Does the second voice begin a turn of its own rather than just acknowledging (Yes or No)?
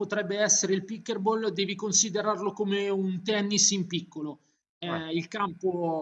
No